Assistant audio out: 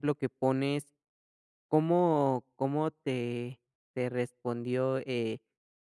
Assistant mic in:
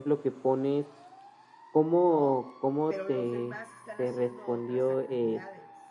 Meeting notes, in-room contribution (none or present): present